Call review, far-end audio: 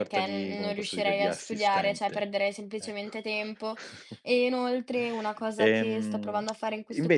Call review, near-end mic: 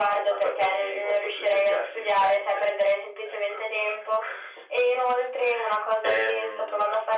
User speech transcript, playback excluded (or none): none